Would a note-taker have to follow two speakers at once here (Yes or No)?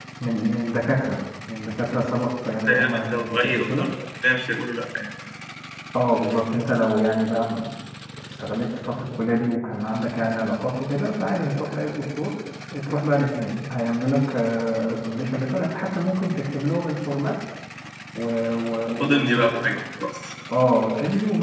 Yes